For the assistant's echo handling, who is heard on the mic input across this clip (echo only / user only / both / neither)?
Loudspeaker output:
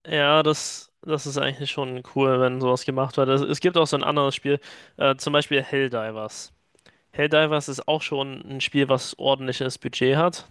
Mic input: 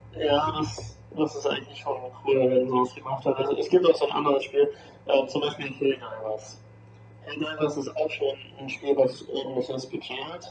echo only